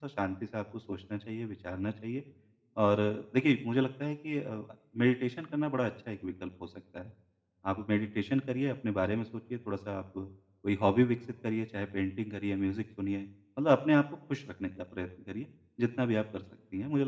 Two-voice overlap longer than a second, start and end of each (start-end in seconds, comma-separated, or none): none